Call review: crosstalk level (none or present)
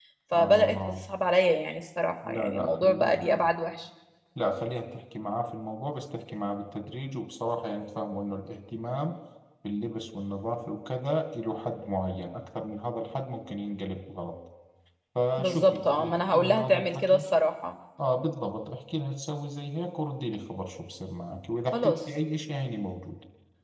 present